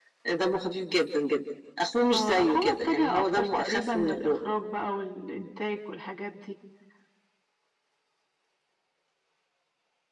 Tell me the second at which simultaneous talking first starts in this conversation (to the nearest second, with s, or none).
2 s